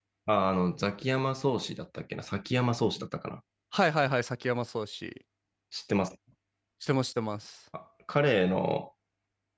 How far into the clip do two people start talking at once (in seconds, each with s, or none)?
none